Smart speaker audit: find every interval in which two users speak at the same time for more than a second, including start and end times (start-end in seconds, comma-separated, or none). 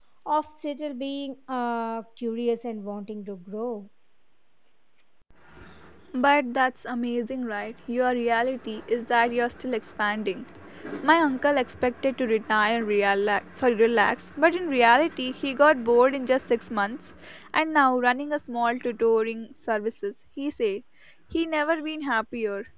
none